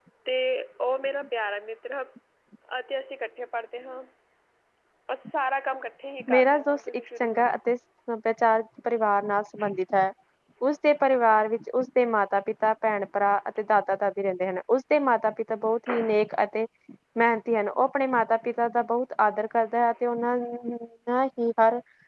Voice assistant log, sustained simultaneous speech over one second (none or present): present